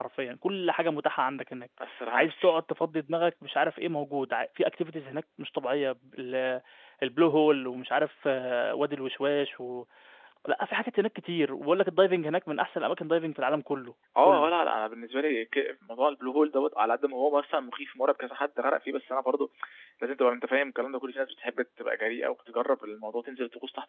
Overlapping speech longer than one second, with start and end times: none

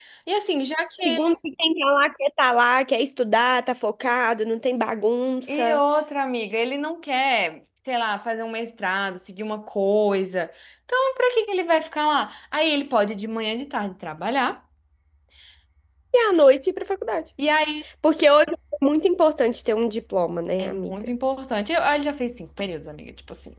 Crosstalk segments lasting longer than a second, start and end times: none

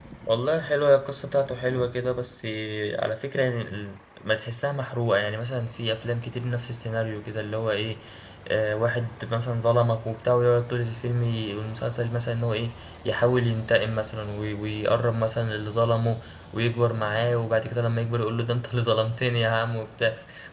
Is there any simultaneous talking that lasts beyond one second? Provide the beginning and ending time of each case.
none

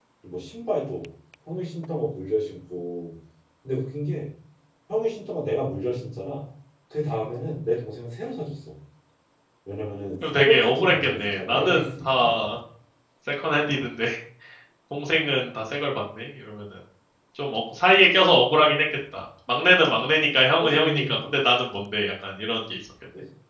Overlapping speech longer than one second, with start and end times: 10.3-12.4

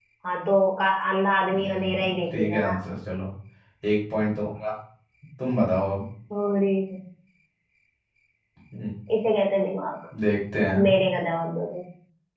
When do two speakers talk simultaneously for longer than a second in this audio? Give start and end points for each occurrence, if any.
1.5-2.8

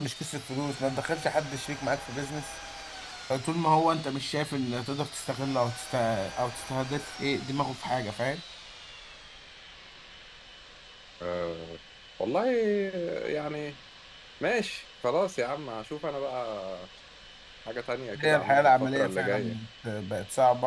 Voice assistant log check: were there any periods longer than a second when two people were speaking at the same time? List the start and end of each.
18.2-19.6

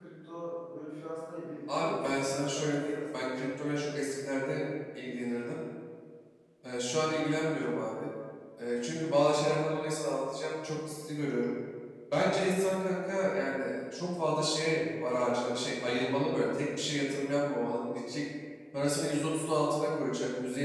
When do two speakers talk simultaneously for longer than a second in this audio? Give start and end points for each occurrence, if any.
1.7-3.2

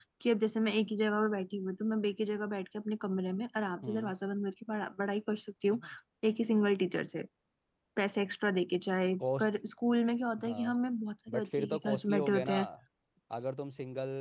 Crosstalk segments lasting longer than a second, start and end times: 11.3-12.6

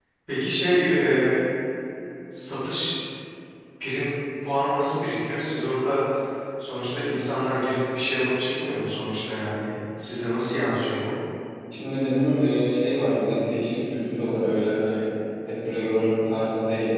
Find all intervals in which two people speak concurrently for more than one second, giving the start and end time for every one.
none

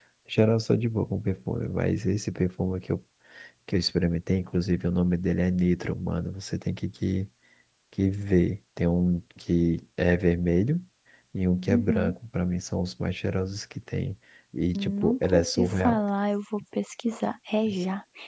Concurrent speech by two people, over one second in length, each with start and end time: 14.7-16.0

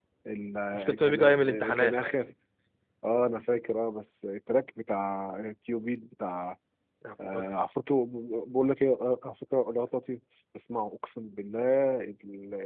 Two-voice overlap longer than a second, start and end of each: 0.7-1.9

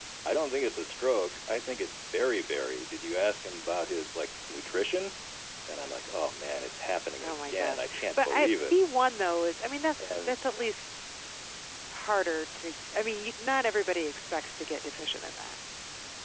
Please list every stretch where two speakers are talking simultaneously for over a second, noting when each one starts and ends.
7.2-8.7

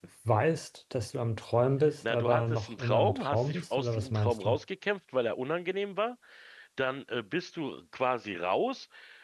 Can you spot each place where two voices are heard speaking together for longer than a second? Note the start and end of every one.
2.1-4.6

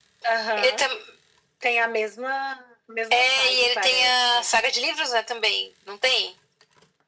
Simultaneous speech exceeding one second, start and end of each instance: 3.1-4.5

